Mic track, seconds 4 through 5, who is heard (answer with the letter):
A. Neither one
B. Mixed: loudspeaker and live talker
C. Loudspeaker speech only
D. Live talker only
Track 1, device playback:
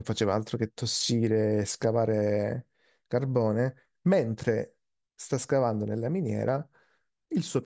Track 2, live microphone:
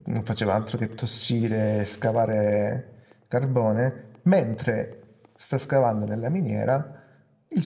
C